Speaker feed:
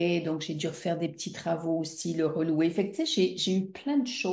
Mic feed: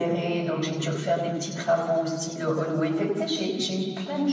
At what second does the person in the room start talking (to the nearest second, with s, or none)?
none